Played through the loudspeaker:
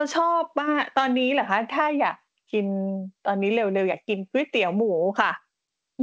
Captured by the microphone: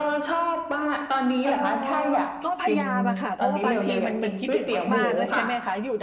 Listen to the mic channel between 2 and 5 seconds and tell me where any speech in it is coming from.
both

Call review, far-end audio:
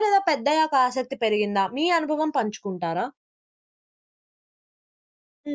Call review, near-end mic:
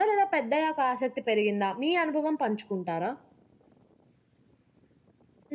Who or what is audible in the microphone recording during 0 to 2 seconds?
echo only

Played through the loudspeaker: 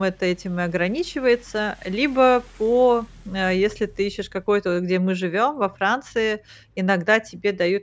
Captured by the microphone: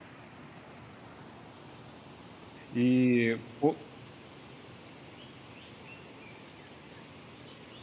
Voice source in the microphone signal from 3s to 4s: user only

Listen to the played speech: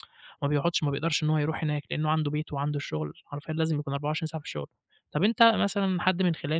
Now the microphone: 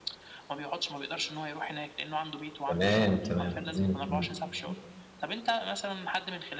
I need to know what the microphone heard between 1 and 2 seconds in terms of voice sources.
echo only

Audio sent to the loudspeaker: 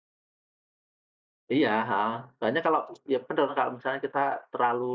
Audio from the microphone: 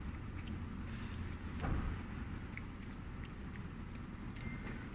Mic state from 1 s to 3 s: neither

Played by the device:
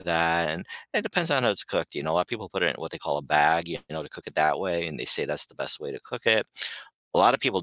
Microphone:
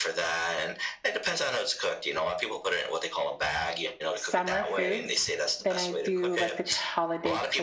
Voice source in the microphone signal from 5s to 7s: both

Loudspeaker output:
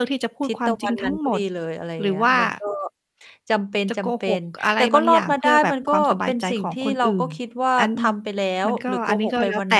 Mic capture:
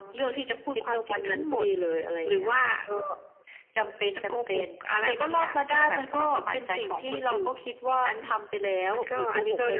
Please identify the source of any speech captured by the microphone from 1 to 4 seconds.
echo only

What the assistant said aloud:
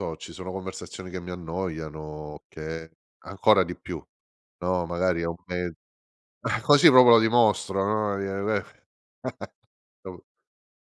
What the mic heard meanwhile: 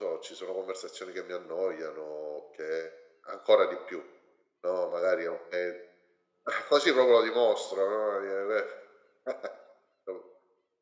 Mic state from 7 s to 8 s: echo only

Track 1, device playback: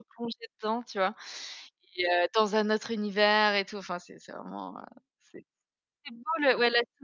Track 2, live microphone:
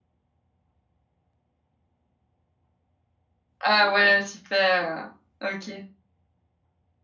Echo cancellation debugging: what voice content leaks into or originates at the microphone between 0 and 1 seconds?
neither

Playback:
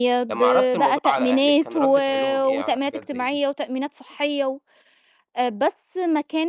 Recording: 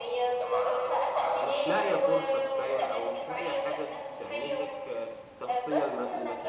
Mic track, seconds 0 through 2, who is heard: both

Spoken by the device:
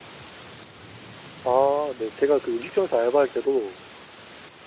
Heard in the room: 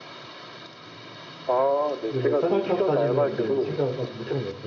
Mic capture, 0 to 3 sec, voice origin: both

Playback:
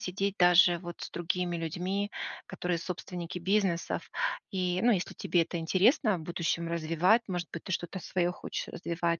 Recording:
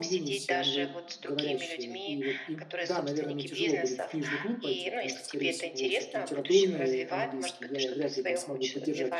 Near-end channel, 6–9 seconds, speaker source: both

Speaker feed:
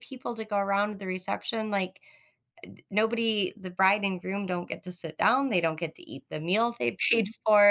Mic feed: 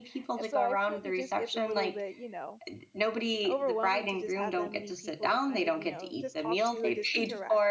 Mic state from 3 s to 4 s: both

